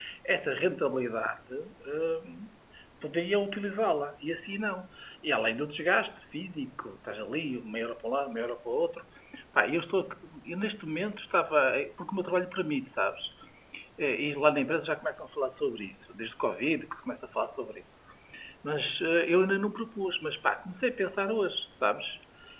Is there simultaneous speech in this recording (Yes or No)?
No